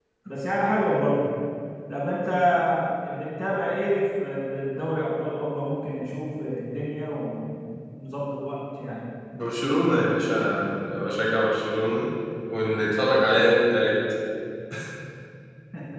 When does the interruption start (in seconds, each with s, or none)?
none